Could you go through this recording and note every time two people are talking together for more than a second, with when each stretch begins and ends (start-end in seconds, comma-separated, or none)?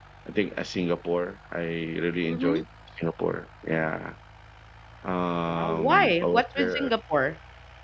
5.5-6.9